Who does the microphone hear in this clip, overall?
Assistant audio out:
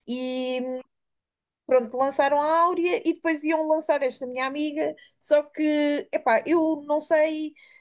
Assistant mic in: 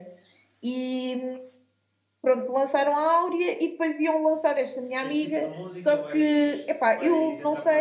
both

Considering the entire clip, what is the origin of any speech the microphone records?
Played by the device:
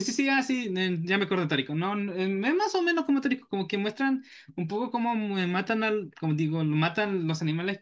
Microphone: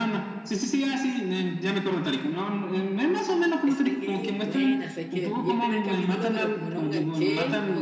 both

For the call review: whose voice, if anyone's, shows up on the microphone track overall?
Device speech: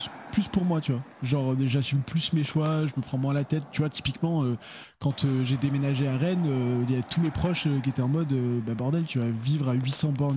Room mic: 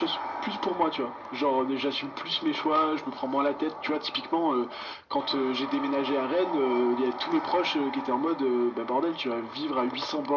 echo only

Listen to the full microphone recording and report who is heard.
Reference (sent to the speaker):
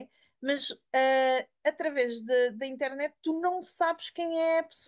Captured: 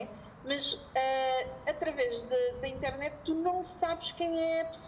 echo only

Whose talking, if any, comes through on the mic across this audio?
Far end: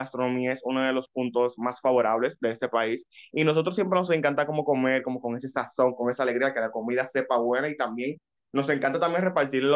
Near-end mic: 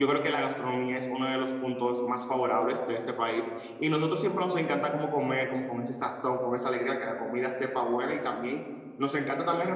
echo only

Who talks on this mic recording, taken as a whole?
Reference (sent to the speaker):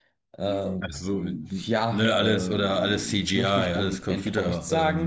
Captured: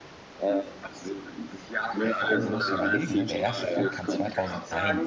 both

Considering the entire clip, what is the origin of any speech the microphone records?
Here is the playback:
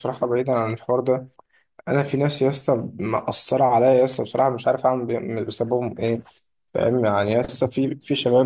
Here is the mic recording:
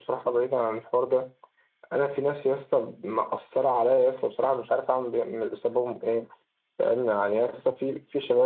echo only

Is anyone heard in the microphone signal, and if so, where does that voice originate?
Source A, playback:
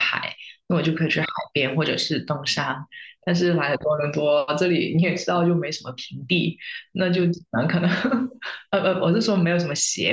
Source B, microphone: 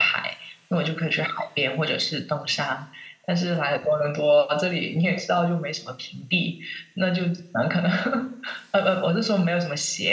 echo only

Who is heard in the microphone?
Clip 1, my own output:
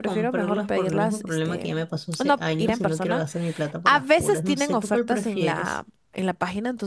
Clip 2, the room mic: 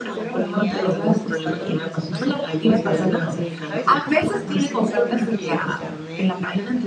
both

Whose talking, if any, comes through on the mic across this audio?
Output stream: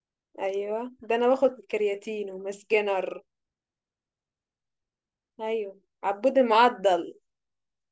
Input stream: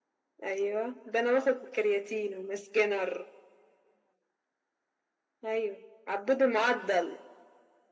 echo only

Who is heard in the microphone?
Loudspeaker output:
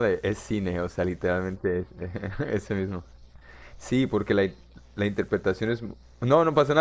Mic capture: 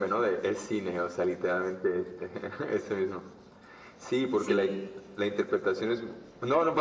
both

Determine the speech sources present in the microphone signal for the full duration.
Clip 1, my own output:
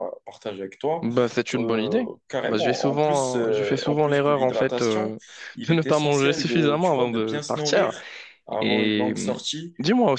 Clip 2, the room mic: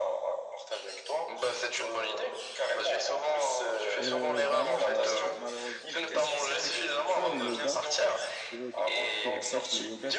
both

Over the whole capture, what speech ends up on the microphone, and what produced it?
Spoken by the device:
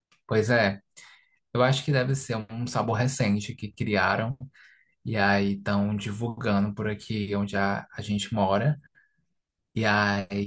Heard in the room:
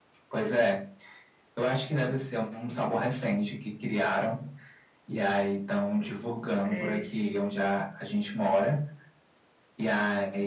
both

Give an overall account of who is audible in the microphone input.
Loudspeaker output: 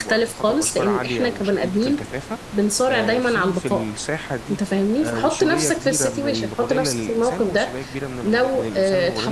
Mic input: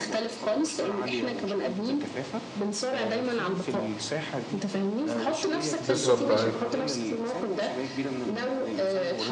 both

